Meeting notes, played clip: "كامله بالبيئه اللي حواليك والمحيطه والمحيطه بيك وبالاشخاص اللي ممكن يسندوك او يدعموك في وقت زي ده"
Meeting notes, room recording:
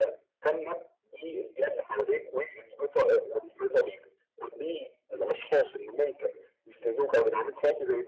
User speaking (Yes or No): No